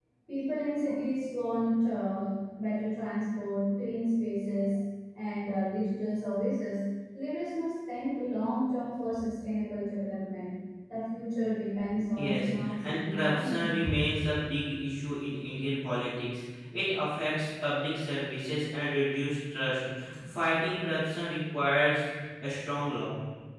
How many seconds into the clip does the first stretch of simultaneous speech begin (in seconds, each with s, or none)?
12.2 s